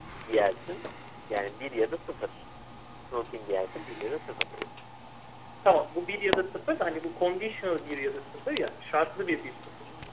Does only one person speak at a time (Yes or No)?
Yes